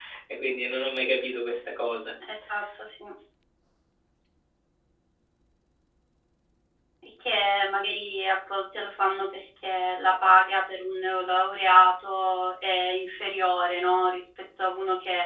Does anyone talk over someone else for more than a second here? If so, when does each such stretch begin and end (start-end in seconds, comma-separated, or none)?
none